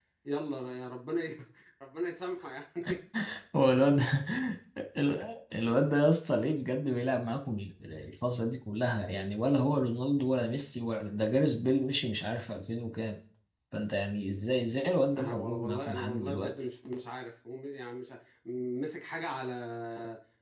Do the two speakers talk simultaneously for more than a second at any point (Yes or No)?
Yes